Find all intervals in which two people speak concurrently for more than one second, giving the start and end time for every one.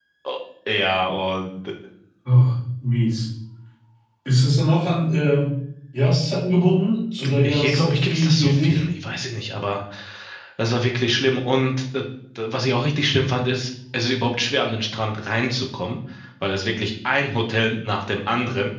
7.4-8.8

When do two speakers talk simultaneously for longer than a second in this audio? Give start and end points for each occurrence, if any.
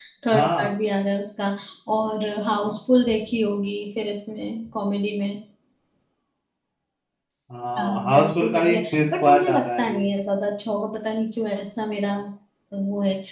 7.8-10.0

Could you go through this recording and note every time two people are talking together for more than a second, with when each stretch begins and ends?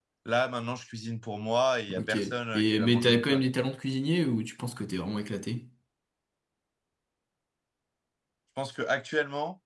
1.9-3.4

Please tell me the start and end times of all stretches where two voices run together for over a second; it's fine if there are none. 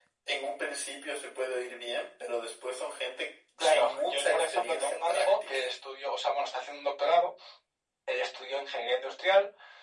3.6-5.6

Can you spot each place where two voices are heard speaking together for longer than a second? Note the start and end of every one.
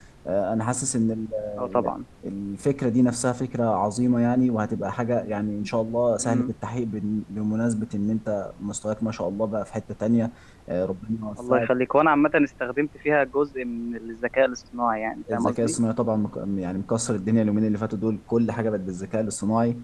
none

